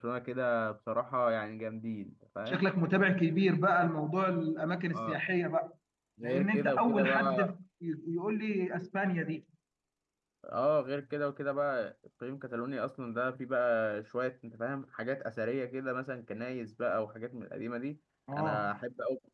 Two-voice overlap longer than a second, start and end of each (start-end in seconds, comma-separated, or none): 6.2-7.5